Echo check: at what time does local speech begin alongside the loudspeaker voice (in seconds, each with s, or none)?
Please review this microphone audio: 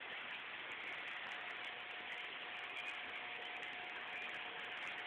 none